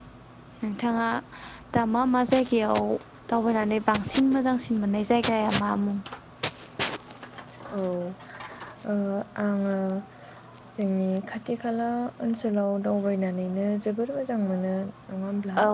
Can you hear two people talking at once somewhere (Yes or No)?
No